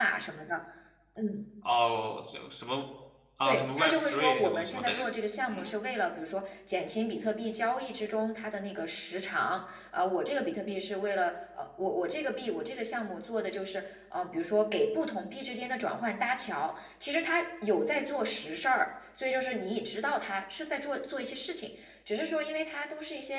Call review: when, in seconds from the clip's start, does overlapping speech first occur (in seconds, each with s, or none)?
3.5 s